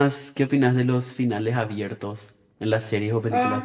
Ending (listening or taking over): taking over